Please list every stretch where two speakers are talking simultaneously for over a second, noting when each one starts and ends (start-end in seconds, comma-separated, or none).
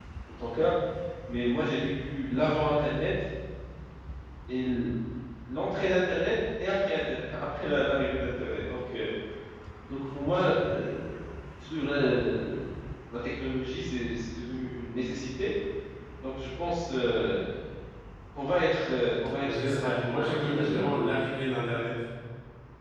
19.4-20.8